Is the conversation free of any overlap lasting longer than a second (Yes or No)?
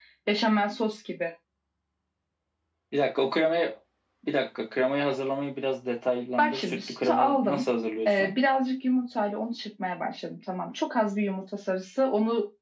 No